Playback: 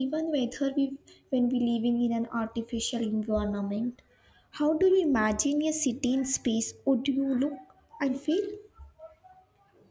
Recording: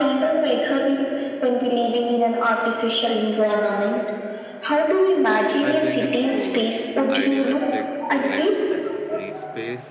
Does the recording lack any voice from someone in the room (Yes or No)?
No